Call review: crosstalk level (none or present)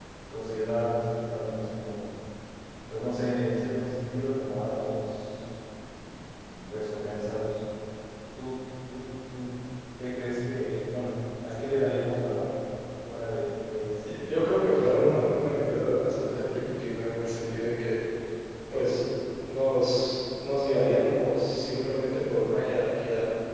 present